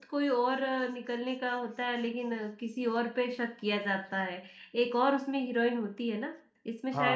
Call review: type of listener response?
taking over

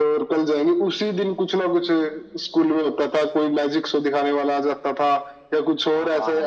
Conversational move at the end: listening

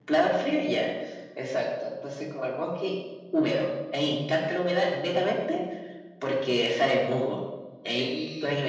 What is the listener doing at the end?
listening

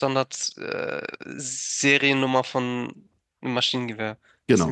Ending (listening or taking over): taking over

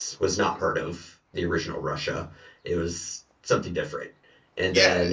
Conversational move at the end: taking over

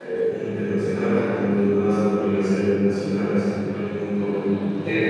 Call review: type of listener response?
listening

